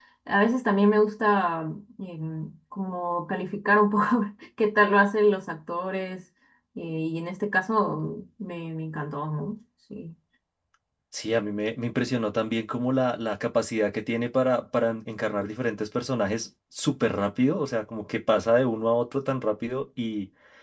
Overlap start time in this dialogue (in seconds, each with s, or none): none